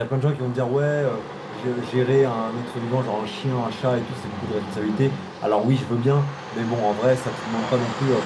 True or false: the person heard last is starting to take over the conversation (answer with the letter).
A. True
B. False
B